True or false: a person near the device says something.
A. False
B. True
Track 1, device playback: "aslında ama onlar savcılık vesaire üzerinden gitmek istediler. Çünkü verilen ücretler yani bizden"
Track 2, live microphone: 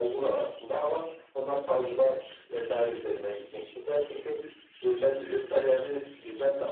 A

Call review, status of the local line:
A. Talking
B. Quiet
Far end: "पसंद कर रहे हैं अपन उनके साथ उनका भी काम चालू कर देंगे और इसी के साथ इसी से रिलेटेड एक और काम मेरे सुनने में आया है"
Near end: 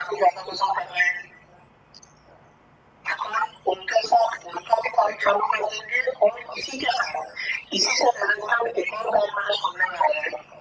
B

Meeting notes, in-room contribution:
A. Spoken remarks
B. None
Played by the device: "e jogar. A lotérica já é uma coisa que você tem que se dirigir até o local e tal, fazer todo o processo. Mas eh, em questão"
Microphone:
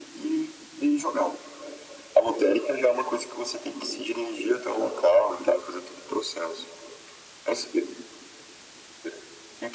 B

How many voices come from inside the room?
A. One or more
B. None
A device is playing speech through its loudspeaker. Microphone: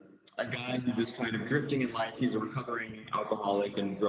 B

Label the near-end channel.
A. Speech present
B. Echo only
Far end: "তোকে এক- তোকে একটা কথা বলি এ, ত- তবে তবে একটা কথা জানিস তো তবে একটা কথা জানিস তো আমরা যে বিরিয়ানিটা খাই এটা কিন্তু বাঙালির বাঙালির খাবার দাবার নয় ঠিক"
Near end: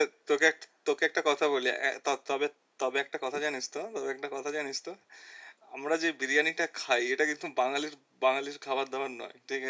B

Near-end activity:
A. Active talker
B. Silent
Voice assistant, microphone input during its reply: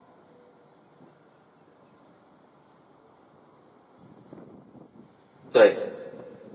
A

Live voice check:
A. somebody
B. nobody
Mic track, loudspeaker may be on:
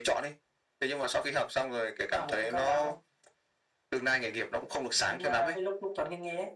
B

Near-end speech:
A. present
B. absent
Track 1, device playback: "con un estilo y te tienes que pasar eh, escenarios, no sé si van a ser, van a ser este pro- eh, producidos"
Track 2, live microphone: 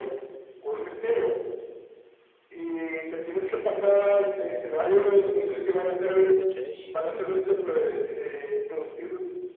A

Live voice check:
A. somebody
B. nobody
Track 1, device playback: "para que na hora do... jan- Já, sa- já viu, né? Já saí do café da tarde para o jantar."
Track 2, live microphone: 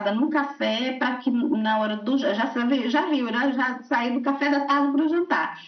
B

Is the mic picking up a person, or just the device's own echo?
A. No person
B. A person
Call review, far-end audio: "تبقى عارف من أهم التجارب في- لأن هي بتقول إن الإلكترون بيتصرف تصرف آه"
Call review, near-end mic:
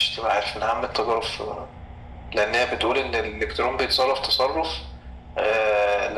A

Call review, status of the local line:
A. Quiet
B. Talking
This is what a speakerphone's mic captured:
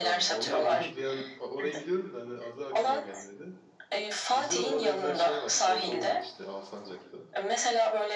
B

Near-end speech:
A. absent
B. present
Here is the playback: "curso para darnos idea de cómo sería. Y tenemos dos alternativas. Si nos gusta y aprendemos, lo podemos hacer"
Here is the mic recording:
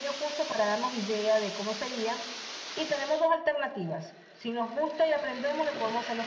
A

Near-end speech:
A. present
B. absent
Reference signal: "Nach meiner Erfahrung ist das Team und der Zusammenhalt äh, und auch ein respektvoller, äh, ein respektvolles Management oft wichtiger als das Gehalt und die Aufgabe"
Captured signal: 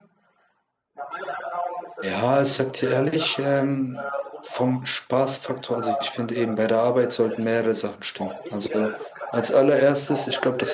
A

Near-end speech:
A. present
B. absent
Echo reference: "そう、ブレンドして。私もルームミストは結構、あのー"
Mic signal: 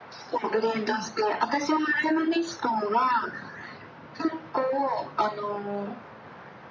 A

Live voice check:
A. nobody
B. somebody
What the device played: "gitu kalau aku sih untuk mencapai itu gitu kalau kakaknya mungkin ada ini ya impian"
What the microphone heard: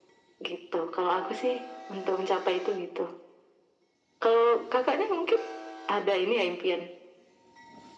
A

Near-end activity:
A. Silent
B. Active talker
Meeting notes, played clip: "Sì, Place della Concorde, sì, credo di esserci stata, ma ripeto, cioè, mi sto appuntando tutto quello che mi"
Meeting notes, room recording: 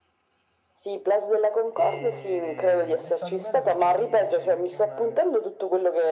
B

